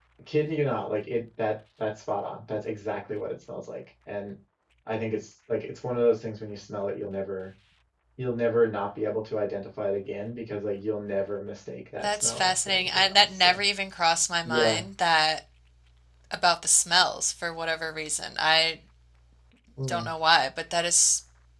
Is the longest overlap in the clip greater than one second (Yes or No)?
Yes